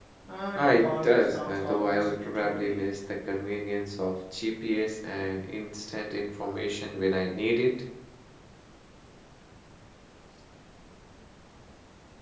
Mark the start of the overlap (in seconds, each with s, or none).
0.6 s